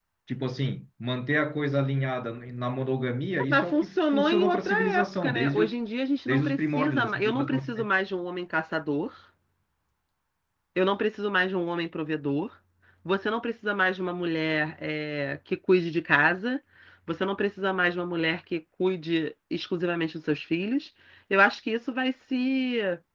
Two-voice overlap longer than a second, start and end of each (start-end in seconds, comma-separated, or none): 3.4-5.7, 6.3-7.9